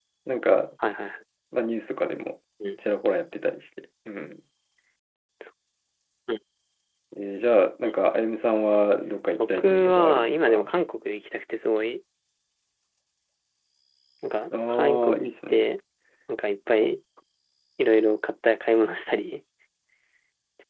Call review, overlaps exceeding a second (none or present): present